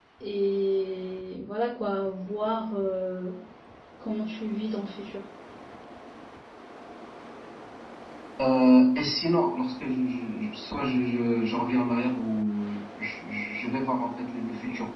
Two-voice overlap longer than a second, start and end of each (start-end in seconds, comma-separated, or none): none